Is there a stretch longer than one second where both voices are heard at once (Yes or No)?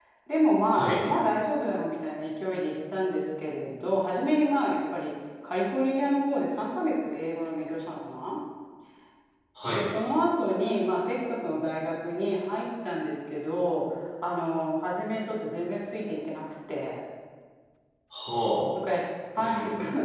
No